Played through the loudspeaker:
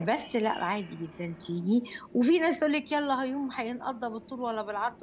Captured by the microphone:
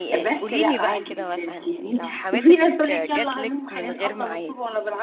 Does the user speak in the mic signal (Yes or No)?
Yes